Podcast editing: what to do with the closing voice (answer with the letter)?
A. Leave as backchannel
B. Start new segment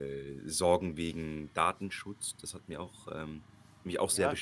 B